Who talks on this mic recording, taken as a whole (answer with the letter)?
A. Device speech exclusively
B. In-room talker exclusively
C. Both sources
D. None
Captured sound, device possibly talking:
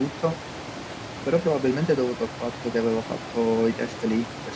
B